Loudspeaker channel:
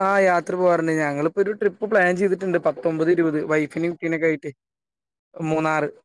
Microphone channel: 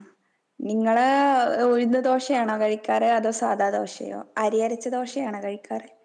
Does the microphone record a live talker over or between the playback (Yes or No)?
Yes